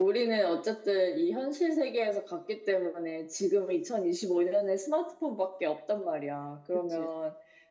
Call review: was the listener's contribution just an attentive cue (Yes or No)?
Yes